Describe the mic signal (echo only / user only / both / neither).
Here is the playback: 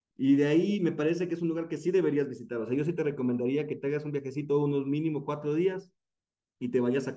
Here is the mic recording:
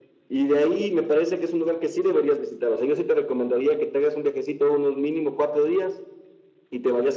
echo only